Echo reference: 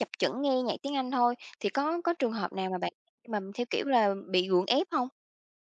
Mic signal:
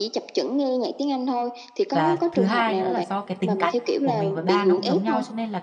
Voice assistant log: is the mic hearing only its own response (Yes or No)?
No